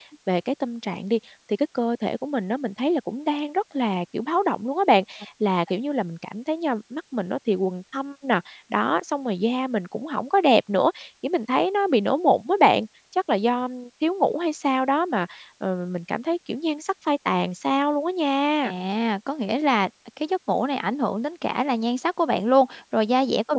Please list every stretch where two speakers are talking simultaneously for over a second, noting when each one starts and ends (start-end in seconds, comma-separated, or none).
none